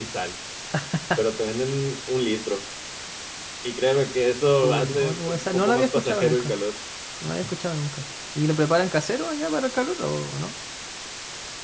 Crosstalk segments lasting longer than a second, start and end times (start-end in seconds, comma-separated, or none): 4.5-6.5